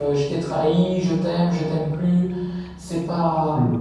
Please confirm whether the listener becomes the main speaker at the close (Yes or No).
No